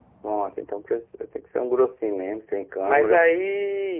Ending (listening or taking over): taking over